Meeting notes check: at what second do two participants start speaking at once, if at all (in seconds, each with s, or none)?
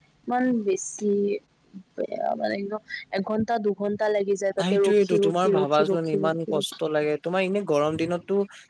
4.6 s